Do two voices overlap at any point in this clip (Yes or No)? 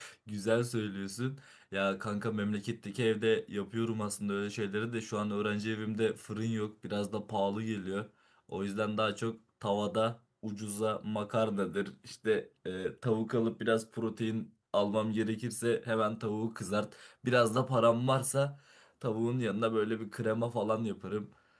No